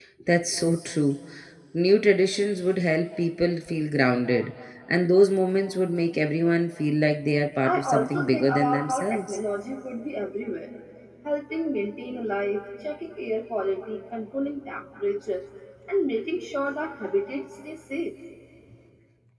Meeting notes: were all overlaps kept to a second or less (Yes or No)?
No